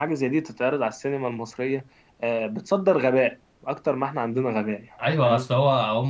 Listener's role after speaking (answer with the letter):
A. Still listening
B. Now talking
B